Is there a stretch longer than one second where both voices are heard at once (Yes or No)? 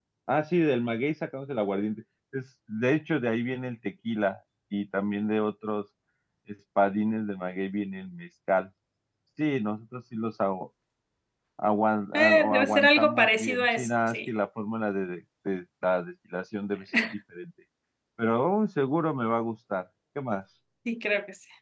Yes